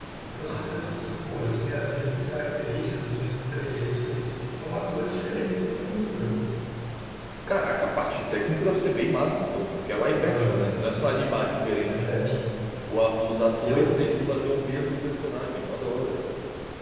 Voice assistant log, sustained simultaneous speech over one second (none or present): present